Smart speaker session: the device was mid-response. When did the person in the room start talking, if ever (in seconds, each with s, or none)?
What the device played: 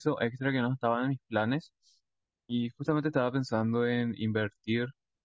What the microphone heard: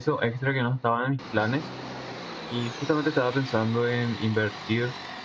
none